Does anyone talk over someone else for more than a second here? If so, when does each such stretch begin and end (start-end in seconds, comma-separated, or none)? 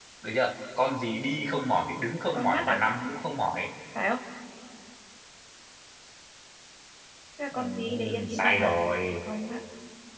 7.5-8.7